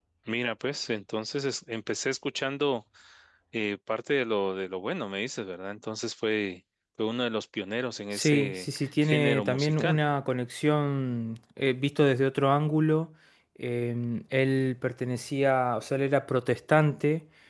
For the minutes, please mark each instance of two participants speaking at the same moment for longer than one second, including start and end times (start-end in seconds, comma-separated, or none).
8.1-10.0